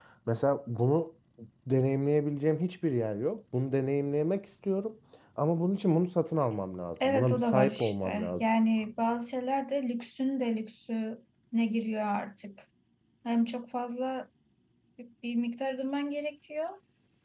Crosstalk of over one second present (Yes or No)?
Yes